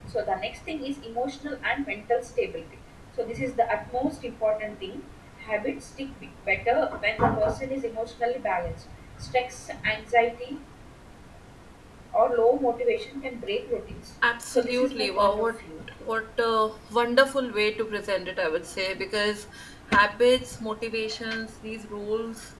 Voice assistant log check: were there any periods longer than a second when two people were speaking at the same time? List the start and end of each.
14.5-15.8

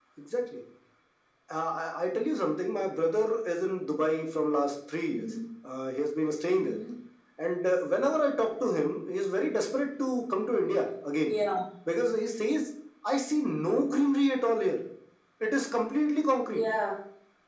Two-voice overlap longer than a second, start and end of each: none

